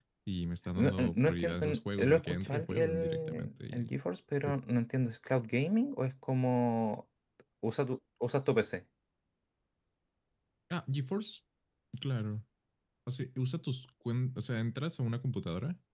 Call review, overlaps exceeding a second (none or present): present